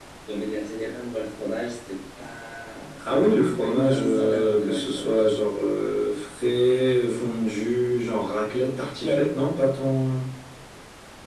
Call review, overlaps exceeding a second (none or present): present